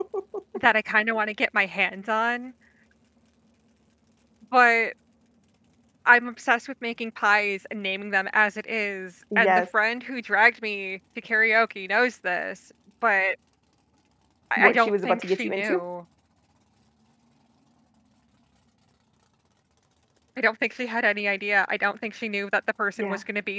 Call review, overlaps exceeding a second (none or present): present